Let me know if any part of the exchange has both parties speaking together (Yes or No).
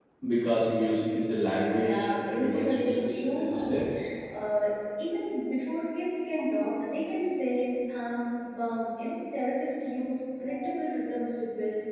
Yes